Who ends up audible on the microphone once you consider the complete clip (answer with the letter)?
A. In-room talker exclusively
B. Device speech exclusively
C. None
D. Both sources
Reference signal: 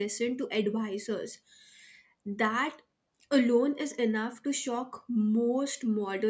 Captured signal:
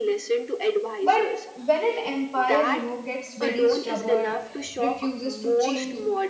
D